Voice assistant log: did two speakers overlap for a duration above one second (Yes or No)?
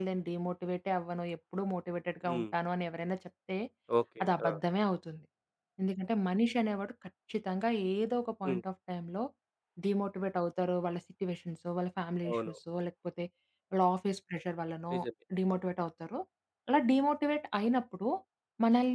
No